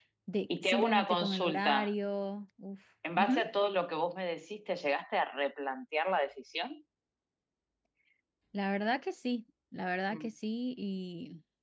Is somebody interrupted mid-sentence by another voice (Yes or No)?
Yes